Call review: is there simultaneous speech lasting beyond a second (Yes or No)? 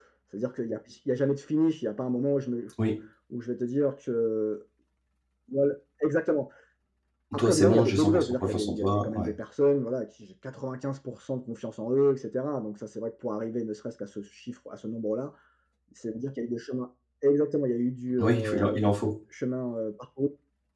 Yes